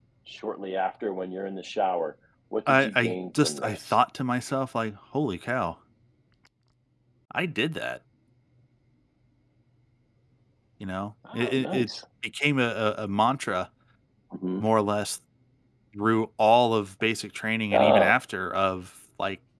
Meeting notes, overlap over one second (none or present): present